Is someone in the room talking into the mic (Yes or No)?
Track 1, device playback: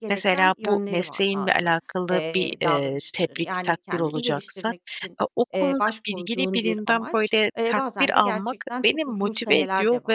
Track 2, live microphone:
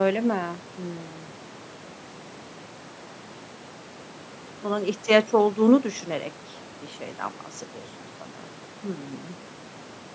Yes